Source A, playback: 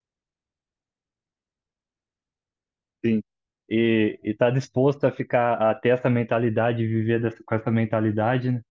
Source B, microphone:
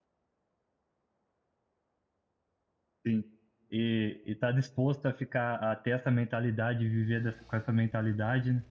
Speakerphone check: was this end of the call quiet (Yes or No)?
Yes